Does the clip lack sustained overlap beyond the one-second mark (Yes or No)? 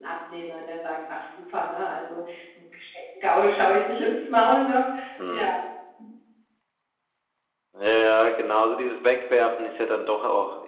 Yes